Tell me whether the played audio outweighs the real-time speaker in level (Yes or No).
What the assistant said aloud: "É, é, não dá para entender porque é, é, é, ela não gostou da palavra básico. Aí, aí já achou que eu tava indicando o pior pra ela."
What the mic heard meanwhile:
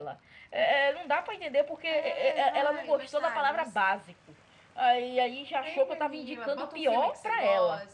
Yes